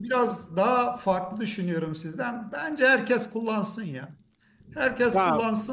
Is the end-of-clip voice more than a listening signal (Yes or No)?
No